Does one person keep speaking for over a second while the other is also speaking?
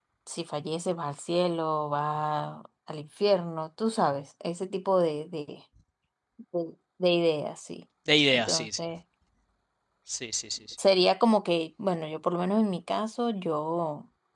No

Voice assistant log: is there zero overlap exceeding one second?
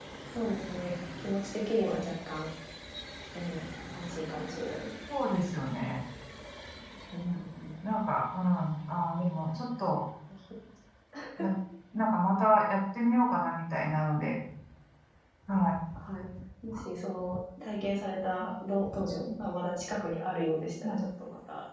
Yes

